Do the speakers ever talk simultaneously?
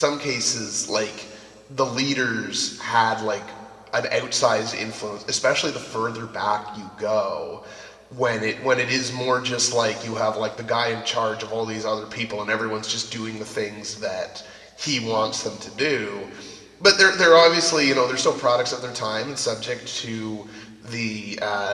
No

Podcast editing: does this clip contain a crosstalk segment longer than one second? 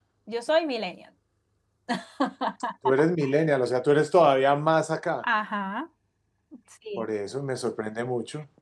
No

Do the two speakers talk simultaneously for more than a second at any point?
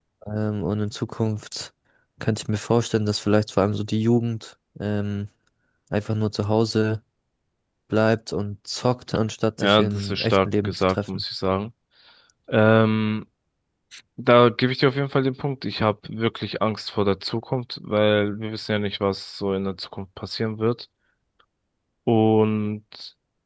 Yes, from 9.6 s

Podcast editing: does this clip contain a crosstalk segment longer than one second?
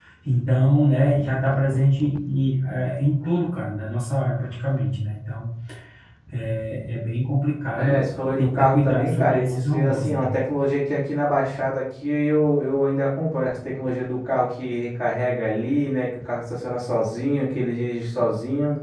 Yes, from 7.7 s

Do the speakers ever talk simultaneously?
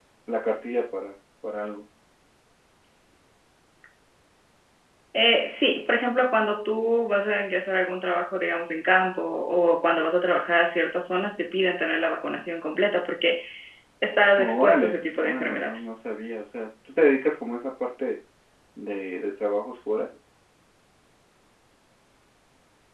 Yes, from 14.4 s

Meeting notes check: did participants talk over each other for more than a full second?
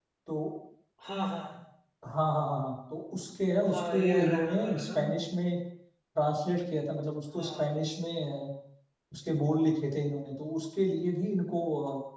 Yes, from 3.7 s

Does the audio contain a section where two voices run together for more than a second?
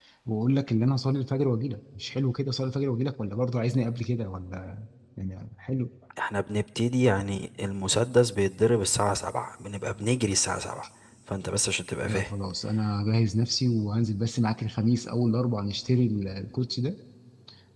No

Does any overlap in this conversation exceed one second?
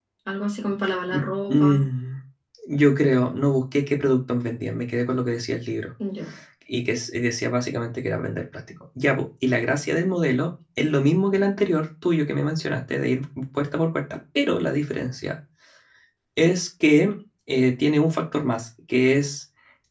No

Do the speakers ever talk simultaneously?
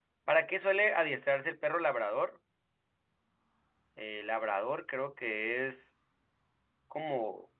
No

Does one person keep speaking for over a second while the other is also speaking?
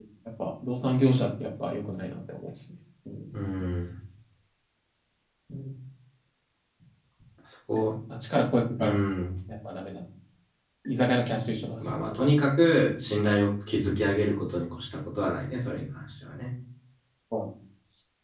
No

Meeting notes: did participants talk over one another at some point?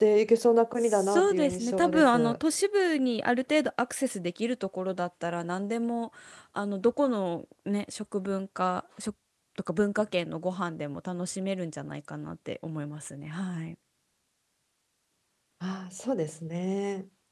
Yes, from 0.8 s

